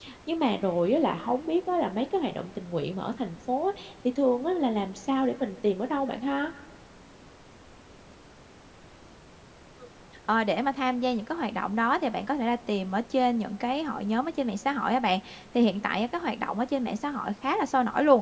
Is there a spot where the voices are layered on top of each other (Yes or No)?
No